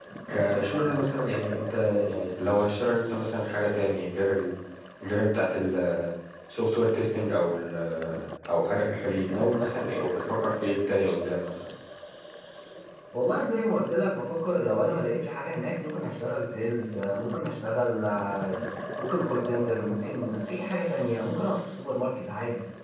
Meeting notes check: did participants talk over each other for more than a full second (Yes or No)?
No